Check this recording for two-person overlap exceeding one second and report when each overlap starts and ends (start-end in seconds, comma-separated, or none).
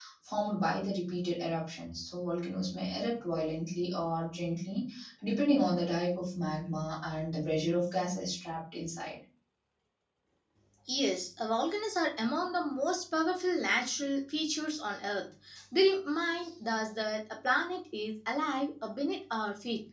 none